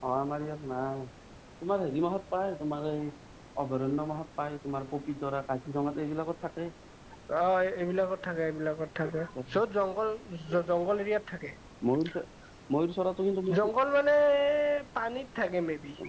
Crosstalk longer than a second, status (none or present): none